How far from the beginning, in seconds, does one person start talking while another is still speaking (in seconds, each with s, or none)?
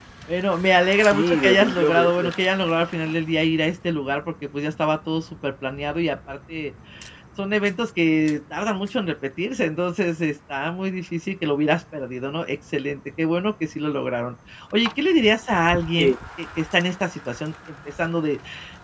1.0 s